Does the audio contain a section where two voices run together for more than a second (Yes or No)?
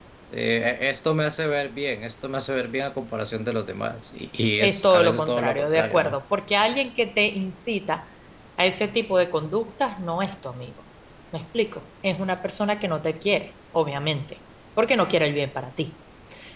Yes